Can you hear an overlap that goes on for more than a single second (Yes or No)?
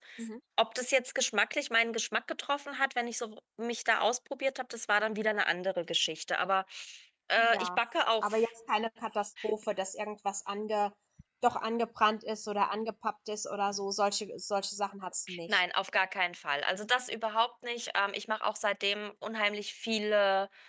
No